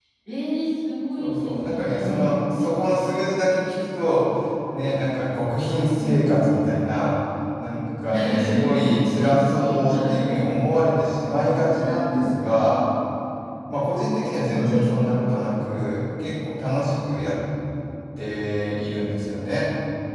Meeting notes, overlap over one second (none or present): present